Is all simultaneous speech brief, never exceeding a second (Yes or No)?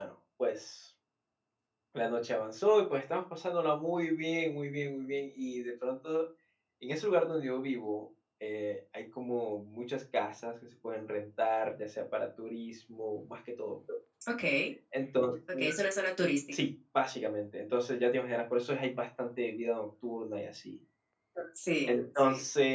Yes